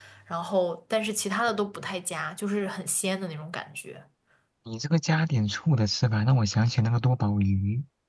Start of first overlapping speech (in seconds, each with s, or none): none